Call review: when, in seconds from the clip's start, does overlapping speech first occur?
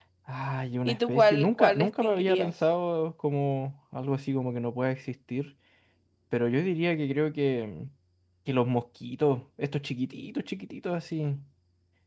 0.8 s

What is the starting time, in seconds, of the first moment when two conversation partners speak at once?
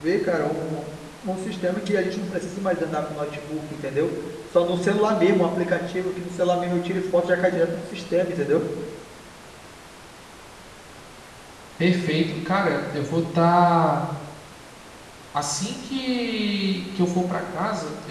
none

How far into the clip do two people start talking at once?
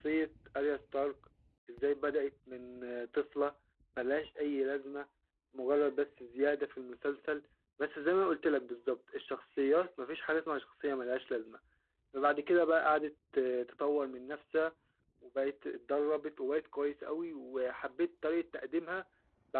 none

